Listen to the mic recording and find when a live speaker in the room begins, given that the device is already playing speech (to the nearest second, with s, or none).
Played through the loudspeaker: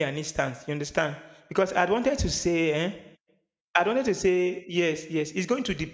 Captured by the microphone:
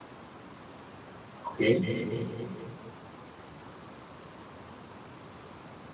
1 s